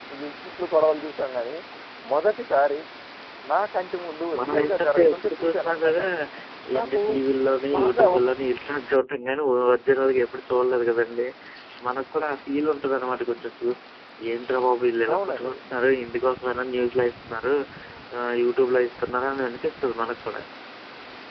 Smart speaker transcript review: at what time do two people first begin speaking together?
4 s

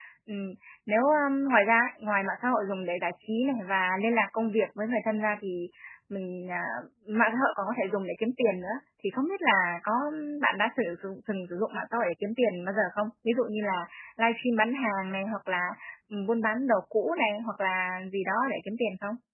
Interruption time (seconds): none

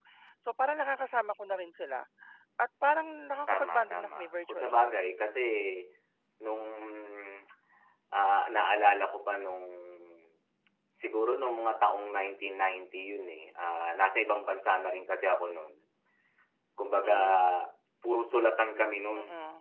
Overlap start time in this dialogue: 3 s

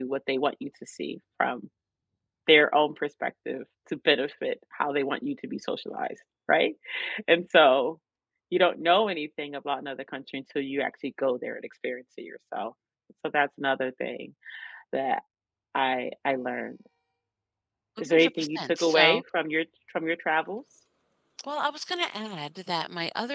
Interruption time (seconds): 18 s

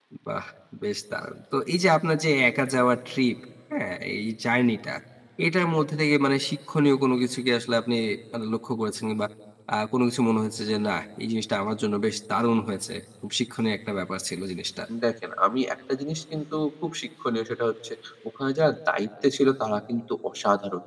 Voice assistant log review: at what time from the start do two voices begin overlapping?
none

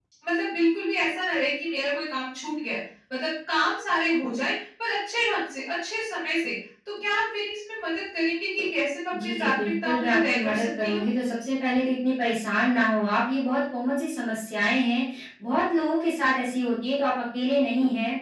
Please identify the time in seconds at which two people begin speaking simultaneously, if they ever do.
9 s

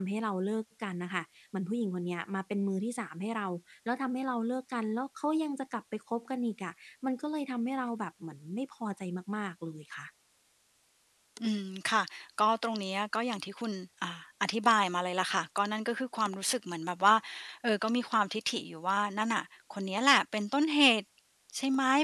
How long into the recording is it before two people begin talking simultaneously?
none

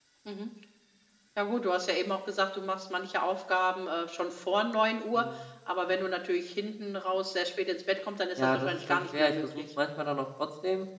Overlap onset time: 8 s

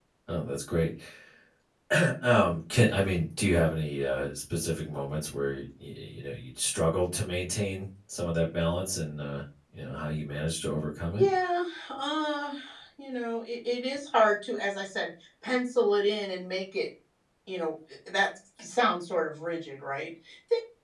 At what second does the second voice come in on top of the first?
none

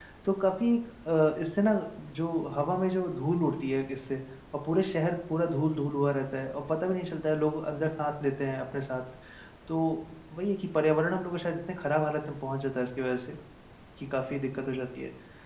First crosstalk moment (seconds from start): none

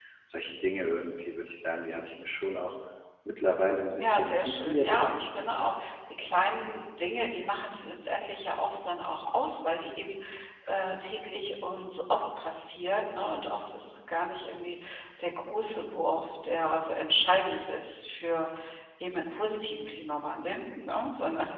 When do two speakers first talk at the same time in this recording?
4 s

